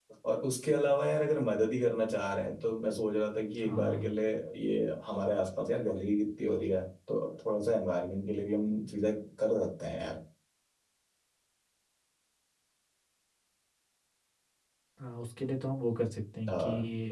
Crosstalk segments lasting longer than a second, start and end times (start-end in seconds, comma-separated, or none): none